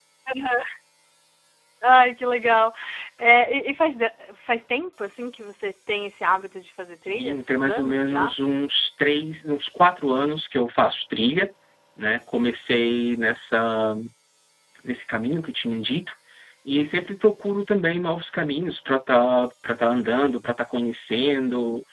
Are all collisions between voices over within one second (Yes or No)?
No